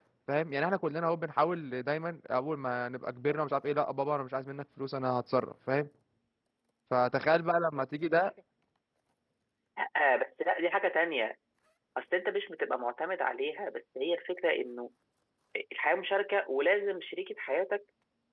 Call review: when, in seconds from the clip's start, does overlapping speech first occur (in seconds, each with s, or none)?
none